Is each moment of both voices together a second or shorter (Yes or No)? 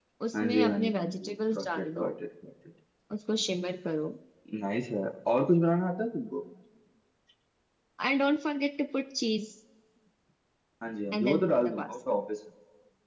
No